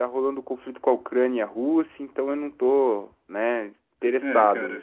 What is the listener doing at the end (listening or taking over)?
taking over